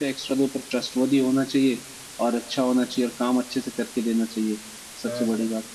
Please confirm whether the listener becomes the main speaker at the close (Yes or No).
Yes